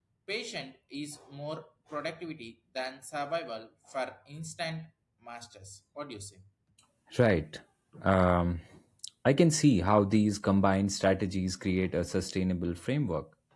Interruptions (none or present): none